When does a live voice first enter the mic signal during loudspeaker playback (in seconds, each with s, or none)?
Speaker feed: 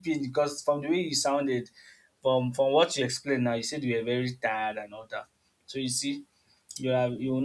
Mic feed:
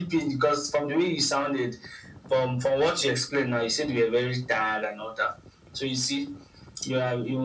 none